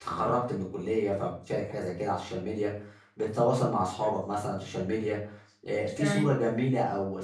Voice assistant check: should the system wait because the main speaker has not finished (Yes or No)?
Yes